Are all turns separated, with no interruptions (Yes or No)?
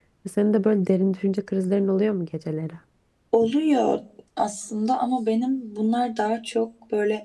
Yes